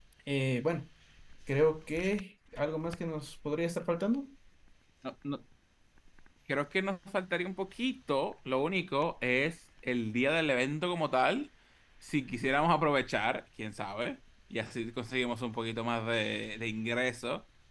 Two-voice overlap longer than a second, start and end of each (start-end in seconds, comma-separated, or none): none